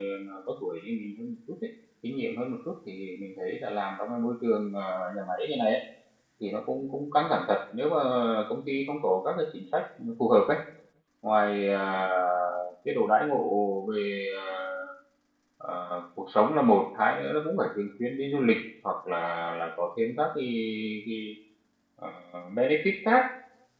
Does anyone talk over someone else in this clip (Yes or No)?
No